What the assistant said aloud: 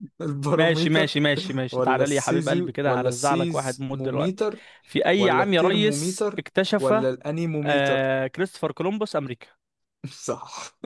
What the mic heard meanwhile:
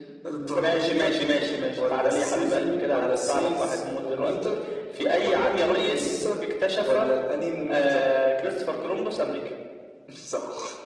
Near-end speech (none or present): none